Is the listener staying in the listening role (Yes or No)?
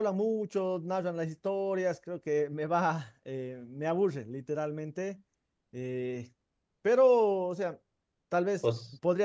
Yes